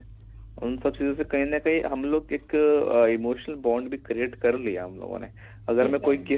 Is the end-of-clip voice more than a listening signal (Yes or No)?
No